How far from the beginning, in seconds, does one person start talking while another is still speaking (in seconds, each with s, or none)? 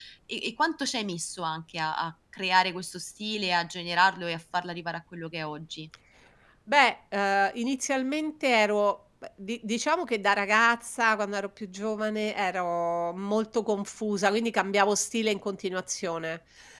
none